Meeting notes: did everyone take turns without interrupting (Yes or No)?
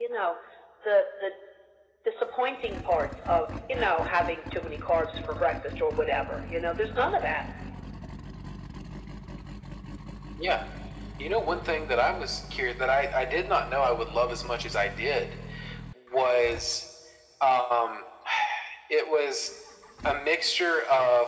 Yes